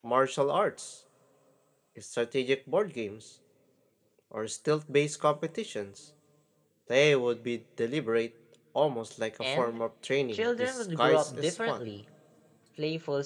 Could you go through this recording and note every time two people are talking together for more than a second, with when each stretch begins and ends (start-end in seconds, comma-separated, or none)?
10.3-11.8